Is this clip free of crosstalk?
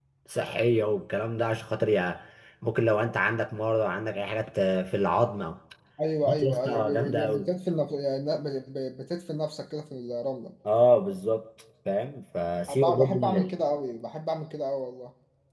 No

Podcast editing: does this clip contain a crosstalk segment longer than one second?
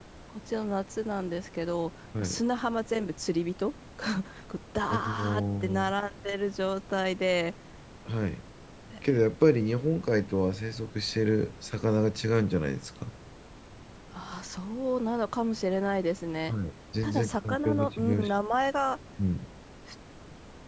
Yes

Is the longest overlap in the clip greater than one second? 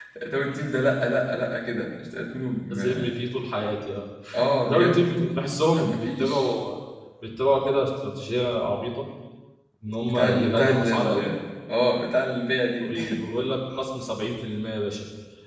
Yes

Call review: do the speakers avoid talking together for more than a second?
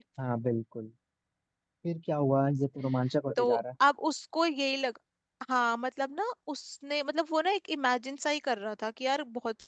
Yes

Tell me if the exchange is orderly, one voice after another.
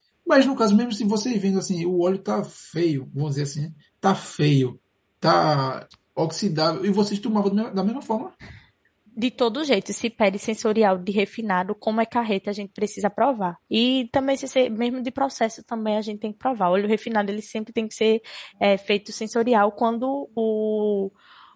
Yes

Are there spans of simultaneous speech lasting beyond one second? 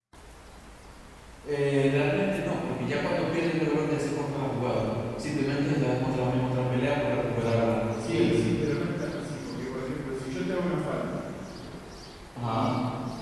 No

